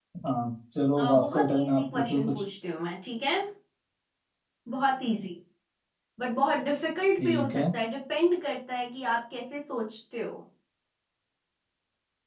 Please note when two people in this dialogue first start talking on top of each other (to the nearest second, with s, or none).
1 s